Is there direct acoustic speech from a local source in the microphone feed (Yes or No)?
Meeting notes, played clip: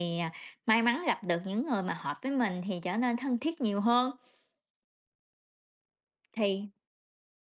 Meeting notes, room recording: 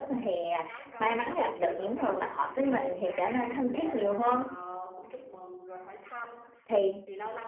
Yes